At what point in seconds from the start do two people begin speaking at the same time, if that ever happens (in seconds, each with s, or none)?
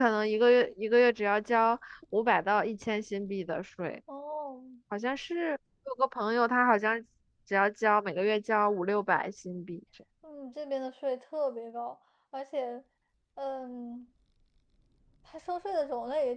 none